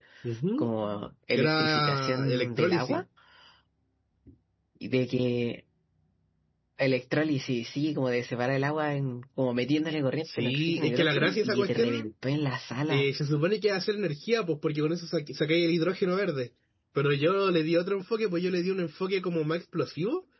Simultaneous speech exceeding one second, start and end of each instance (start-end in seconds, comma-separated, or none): 1.3-3.0, 10.2-12.1